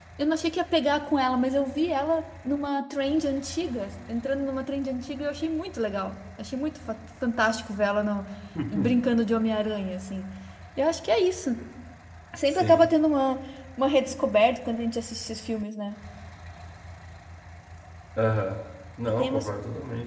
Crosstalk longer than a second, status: none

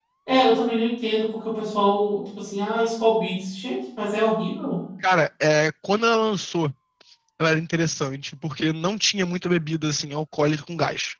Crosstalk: none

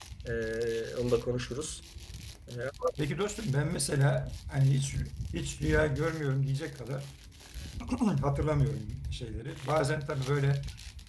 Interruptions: none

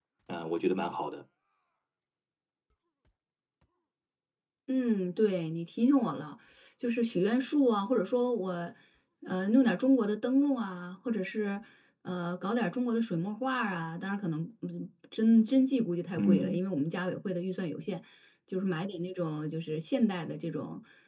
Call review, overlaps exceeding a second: none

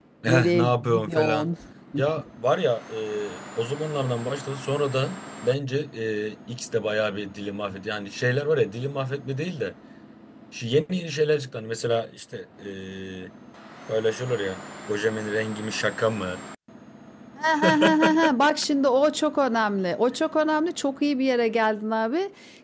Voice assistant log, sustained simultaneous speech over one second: present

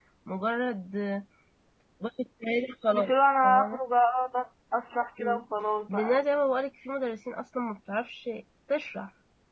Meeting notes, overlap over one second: none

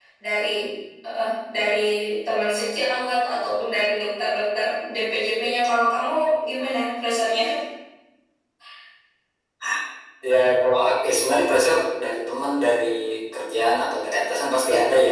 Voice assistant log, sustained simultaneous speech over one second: none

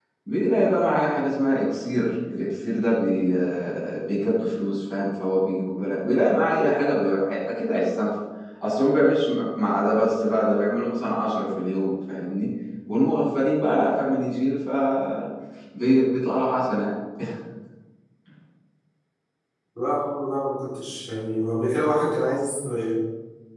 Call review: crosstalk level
none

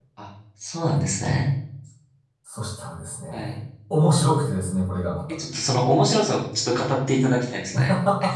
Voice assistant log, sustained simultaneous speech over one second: none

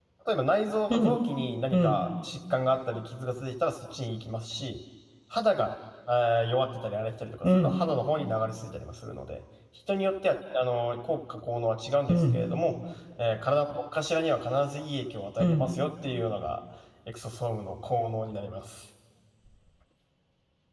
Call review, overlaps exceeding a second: none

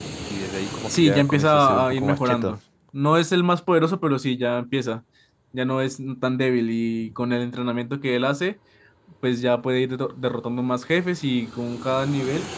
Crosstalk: present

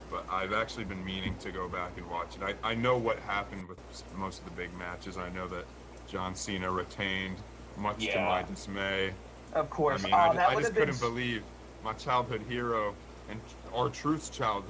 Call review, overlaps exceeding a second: present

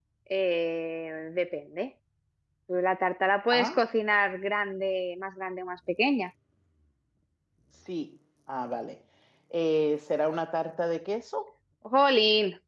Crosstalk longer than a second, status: none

